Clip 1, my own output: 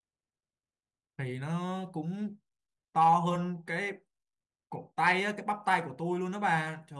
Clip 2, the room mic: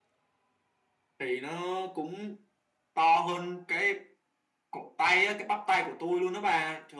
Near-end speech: none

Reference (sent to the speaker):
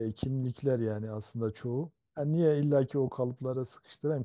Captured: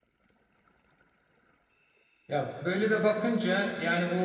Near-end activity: present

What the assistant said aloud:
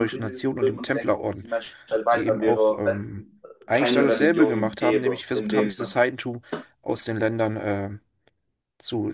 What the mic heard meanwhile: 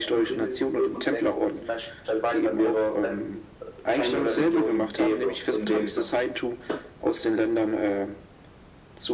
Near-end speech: none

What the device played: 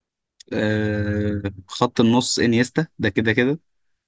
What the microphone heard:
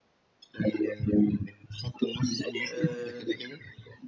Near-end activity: present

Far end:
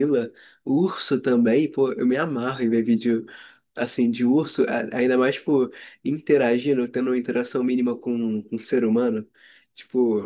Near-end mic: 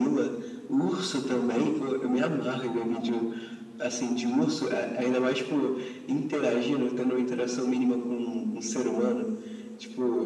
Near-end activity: none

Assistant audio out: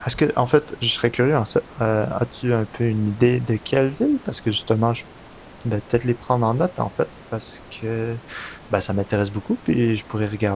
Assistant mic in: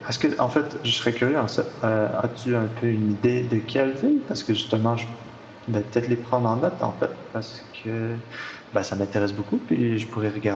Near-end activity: none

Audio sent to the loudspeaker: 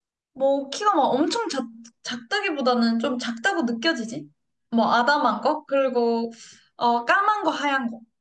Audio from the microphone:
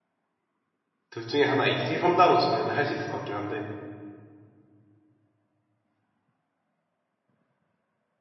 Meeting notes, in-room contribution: present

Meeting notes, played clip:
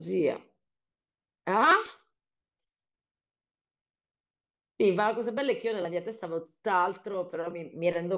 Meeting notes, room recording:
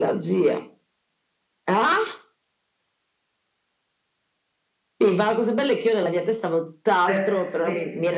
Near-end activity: present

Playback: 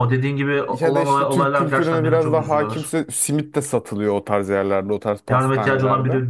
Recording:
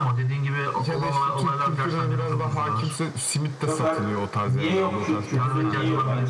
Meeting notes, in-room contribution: present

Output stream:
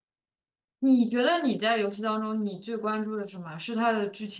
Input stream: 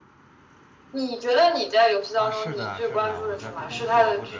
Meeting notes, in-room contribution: present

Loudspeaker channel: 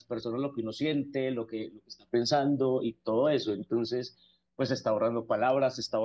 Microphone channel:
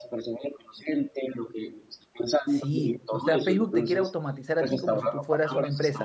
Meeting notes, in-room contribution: present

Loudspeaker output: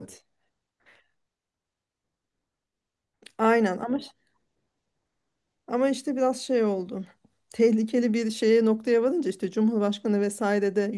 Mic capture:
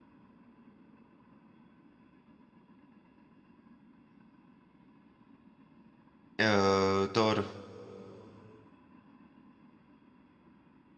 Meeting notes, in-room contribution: present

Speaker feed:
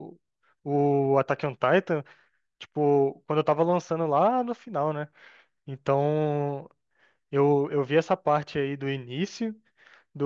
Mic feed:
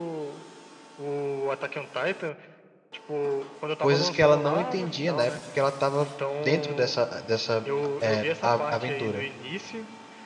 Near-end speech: present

